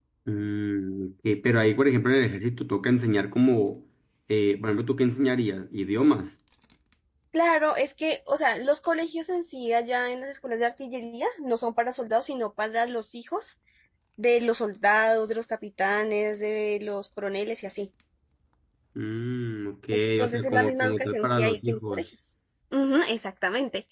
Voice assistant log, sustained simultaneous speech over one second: present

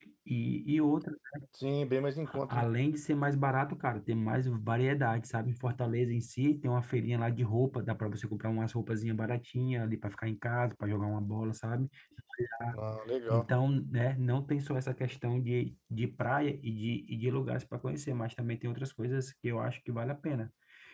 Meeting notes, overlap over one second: none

